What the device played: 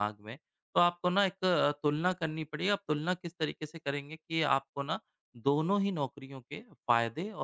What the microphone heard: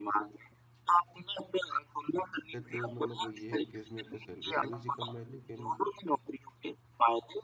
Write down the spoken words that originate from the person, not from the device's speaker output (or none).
दिक्कत मतलब वो ये है कि उसमें एक तो सैलरी थोड़ी-सी कम है, लेकिन